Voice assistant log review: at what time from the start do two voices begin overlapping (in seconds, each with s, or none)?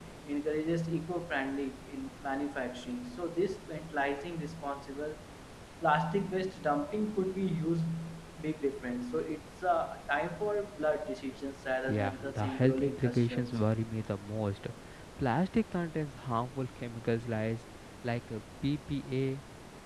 11.9 s